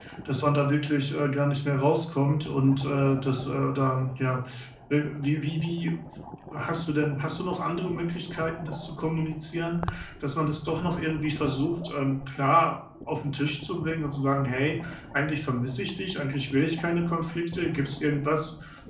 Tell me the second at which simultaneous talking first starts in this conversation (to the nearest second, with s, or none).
none